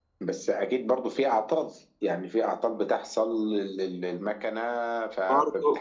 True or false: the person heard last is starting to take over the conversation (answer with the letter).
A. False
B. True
B